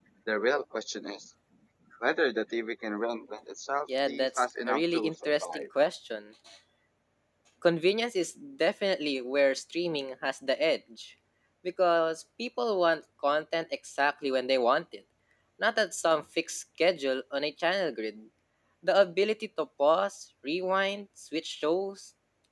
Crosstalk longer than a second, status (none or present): present